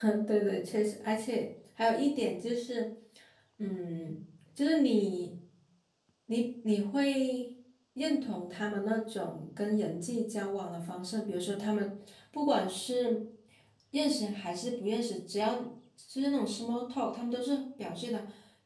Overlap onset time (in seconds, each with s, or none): none